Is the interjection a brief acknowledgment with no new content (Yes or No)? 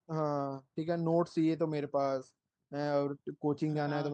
Yes